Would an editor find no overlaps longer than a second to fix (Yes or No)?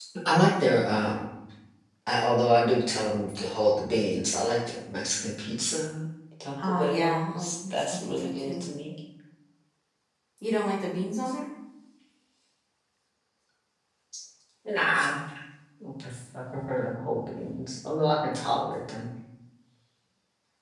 No